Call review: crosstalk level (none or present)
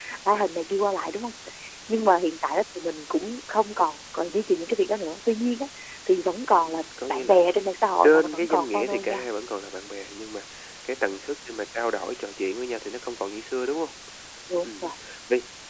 present